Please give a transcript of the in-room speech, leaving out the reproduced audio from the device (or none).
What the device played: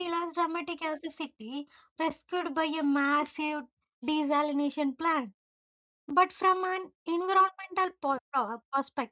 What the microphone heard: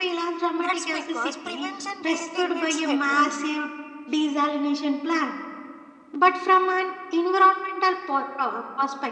That's because prevention rarely gets headline.